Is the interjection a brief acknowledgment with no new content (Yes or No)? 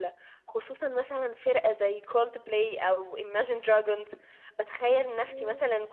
Yes